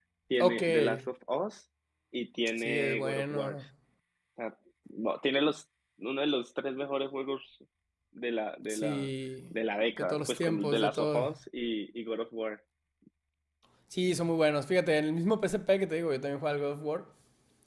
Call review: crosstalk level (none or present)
present